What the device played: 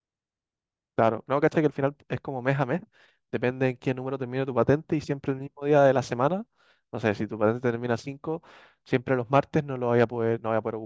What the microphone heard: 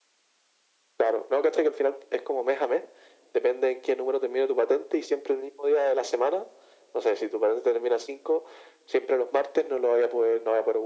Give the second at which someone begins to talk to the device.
none

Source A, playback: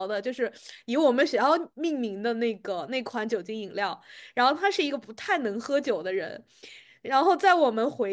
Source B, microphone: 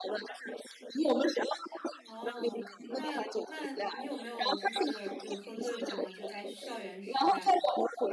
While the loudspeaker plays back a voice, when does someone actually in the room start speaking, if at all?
2.0 s

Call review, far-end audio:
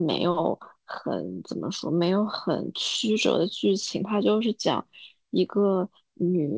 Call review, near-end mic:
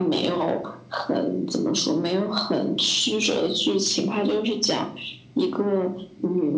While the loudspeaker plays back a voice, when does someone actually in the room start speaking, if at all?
none

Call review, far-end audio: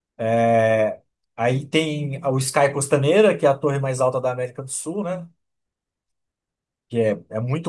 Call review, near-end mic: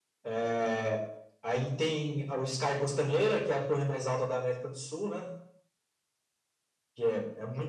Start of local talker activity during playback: none

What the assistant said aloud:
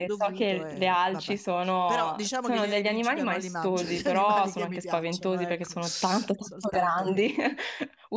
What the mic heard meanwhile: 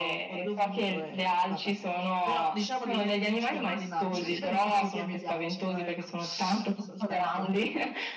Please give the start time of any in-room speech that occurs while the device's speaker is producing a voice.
none

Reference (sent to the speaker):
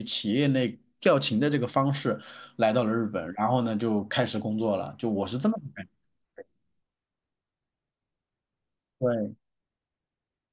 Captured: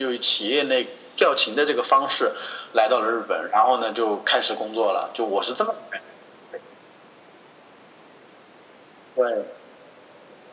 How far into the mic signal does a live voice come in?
none

